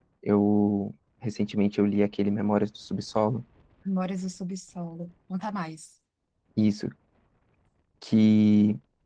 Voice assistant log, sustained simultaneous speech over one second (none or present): none